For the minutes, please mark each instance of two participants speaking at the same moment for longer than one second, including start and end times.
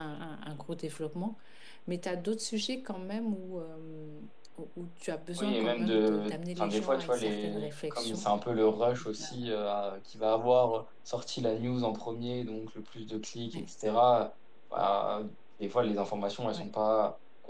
5.4-8.3

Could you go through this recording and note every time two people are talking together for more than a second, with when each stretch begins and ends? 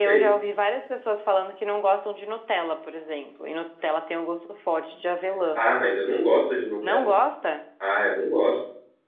none

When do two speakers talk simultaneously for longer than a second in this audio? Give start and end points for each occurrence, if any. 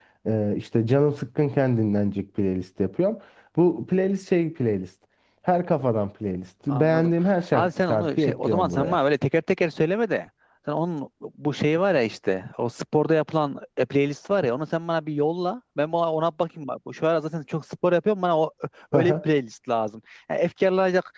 7.5-9.0

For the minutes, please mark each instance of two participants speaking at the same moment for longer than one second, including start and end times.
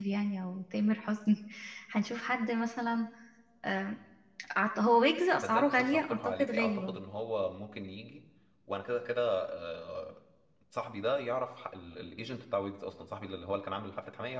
5.4-7.0

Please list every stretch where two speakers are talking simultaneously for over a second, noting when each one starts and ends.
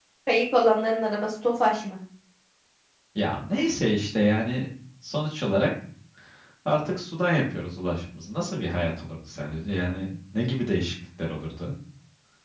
none

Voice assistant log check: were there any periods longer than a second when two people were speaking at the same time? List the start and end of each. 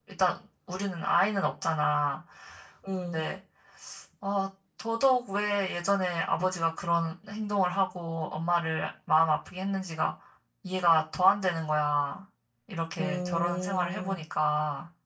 13.0-14.2

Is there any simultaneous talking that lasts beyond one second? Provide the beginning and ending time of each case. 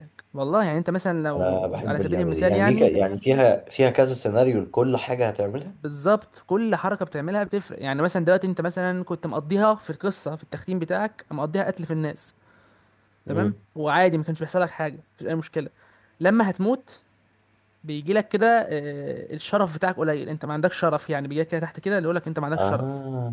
1.4-2.9

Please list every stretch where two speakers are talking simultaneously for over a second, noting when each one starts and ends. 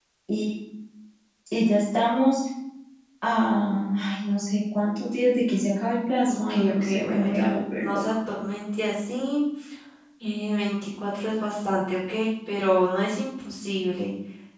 6.3-8.0

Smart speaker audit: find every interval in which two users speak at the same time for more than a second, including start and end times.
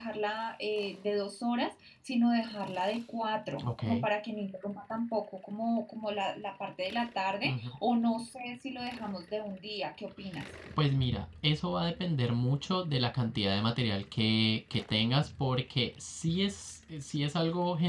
none

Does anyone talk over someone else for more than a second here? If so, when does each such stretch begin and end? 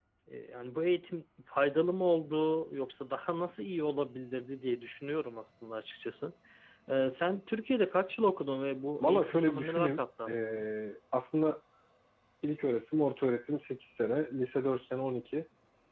9.0-10.7

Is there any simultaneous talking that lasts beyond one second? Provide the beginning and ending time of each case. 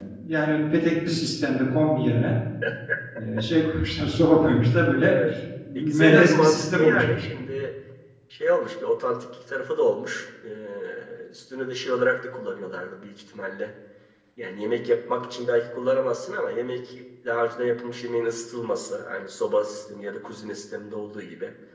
5.8-7.3

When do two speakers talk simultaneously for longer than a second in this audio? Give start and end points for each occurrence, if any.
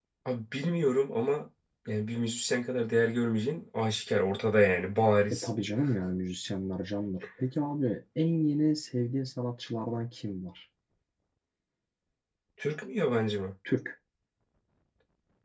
none

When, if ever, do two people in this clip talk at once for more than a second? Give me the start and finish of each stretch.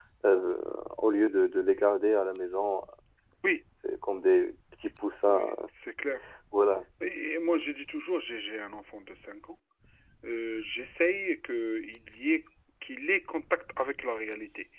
none

